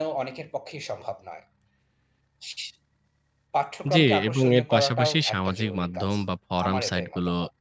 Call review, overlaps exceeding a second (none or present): present